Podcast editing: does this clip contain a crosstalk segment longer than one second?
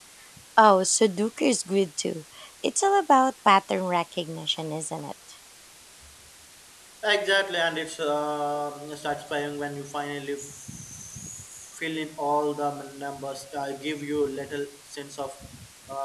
No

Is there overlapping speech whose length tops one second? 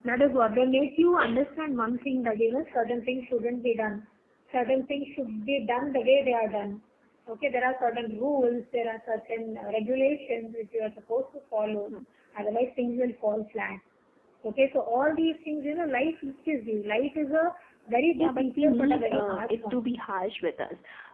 Yes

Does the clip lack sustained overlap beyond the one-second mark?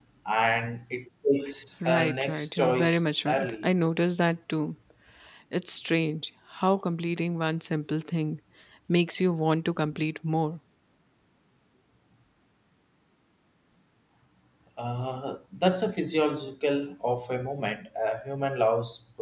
No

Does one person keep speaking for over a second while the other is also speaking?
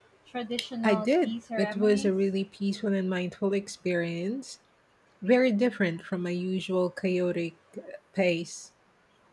Yes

